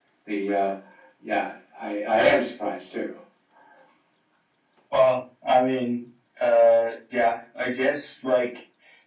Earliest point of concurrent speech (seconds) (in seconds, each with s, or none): none